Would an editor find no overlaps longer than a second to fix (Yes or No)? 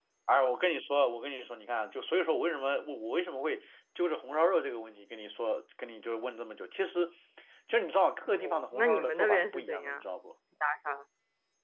No